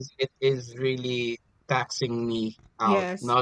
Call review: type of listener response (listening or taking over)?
listening